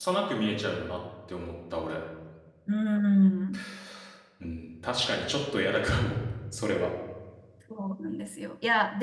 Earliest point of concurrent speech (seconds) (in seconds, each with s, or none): none